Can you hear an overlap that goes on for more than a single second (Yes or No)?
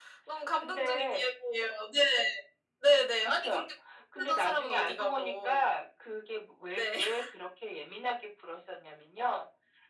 Yes